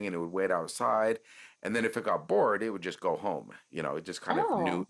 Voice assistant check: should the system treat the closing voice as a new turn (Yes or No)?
No